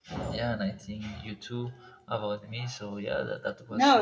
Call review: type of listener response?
taking over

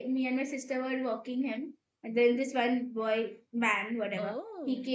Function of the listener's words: listening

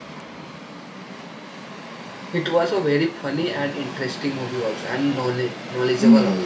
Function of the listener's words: taking over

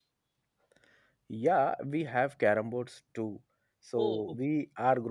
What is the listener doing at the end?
listening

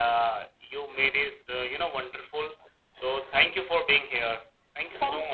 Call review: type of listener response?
taking over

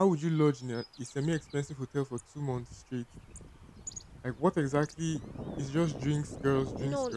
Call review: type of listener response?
taking over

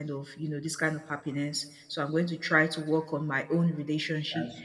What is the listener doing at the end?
listening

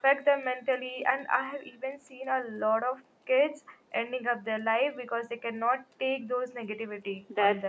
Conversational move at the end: taking over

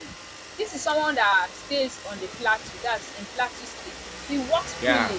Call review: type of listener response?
listening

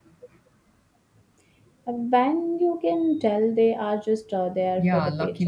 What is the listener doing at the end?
taking over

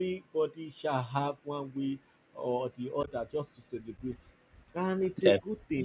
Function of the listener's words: listening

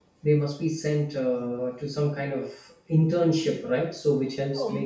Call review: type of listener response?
taking over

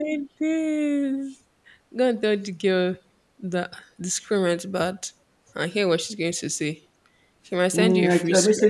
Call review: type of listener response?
taking over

